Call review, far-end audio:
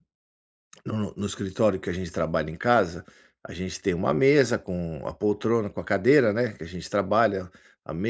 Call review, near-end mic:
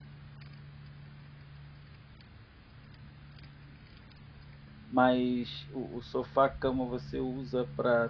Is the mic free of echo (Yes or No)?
Yes